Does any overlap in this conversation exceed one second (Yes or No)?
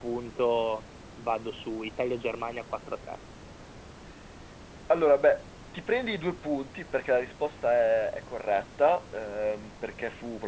No